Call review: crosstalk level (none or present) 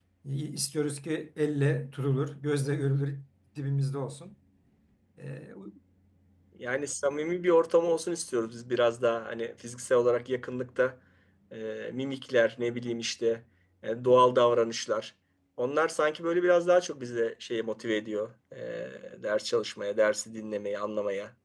none